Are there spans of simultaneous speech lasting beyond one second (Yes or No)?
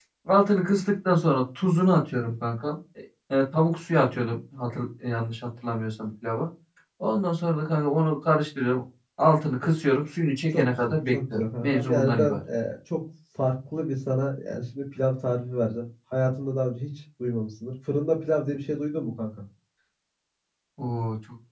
Yes